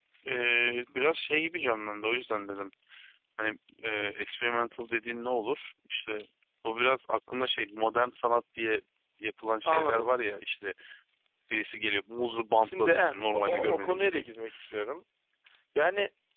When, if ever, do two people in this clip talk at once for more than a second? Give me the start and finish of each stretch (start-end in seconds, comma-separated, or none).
12.6-14.2